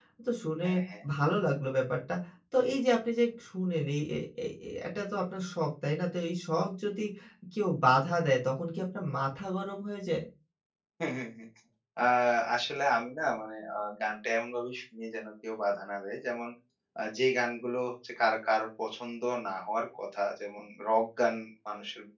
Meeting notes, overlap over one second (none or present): none